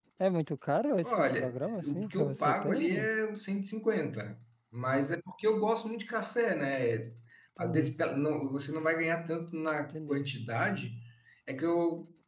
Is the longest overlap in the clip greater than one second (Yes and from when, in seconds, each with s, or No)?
Yes, from 1.0 s